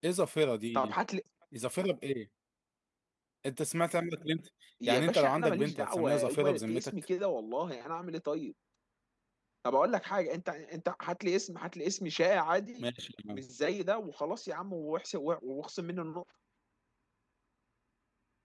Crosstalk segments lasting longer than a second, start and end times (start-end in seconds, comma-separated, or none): 4.8-6.9